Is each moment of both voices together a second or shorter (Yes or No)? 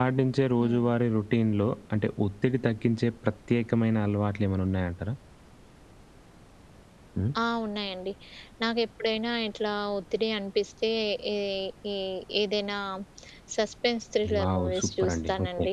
No